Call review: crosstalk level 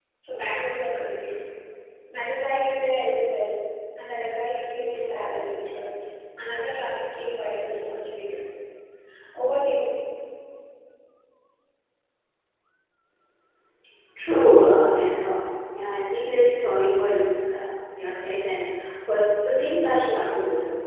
none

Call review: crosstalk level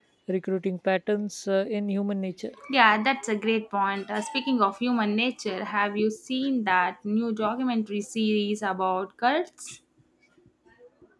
none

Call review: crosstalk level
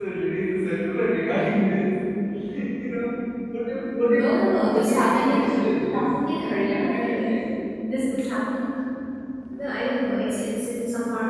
present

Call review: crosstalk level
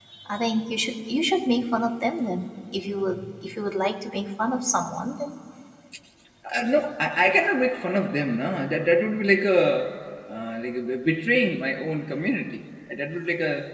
none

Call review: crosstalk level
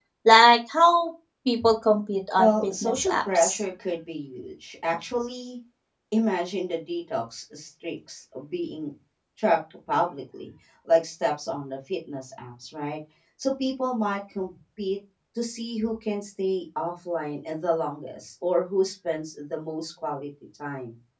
present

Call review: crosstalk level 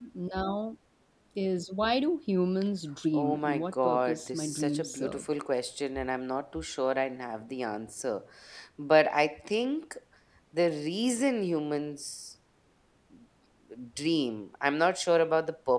present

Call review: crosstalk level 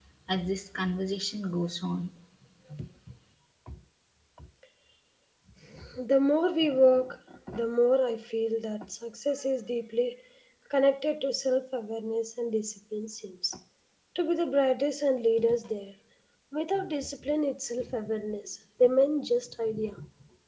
none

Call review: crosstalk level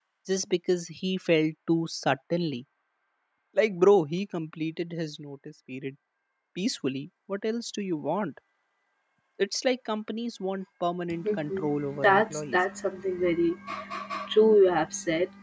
present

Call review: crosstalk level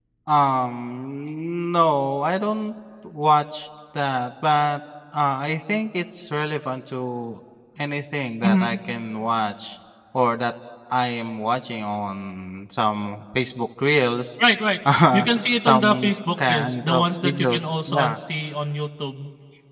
present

